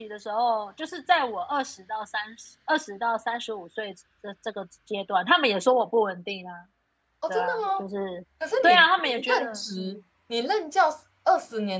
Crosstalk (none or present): present